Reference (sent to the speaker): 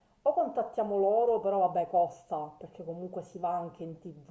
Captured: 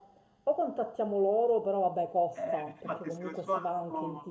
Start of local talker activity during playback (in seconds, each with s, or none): 2.4 s